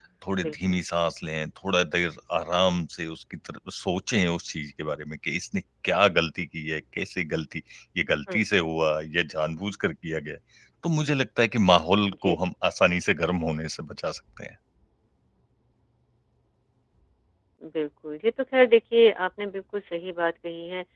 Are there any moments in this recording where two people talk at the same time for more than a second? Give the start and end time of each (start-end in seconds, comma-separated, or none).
none